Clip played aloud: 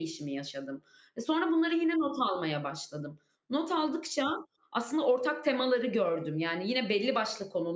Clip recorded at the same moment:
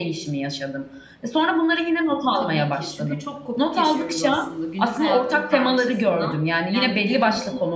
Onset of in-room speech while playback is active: 2.3 s

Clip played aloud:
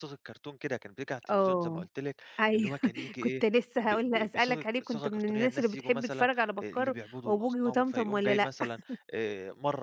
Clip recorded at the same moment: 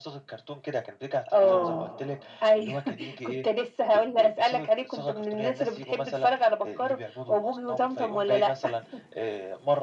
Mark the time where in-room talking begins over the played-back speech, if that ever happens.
1.3 s

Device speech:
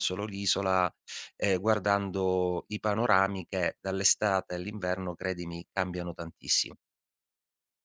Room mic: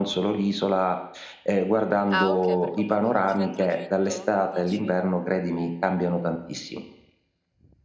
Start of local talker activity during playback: 2.1 s

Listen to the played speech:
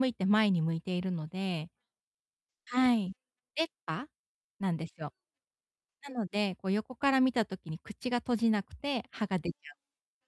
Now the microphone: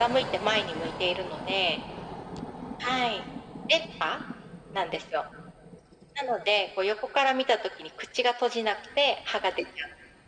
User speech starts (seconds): none

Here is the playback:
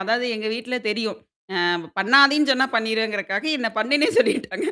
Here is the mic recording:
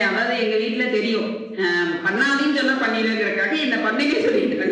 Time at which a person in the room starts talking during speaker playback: none

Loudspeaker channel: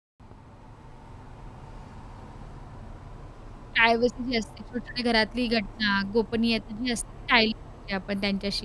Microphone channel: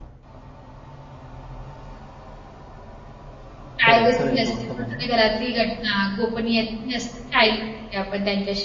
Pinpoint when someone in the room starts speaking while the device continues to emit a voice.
3.9 s

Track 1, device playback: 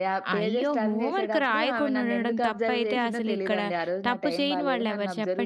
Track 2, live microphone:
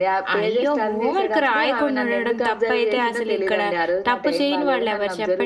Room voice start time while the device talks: none

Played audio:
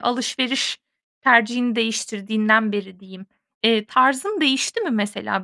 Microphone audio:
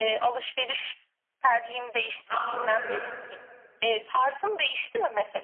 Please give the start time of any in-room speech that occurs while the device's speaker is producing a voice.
2.3 s

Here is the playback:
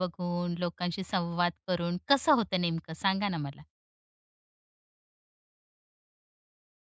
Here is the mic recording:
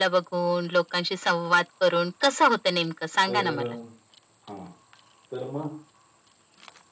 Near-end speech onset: 3.3 s

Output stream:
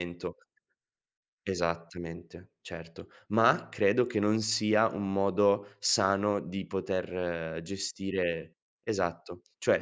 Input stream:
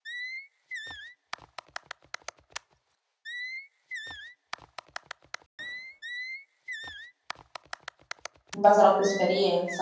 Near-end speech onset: 8.5 s

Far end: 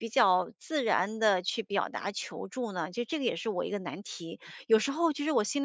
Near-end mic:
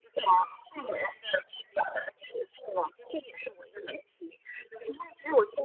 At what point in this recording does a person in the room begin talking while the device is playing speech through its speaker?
none

